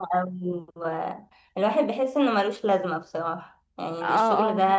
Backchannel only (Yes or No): No